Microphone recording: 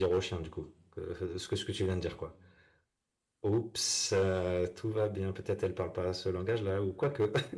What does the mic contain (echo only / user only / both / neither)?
user only